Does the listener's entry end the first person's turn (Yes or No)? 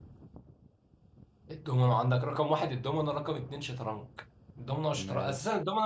No